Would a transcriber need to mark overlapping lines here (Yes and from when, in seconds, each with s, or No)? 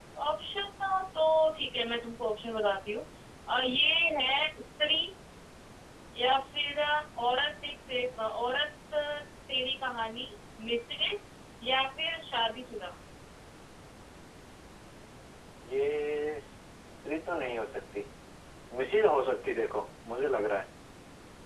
No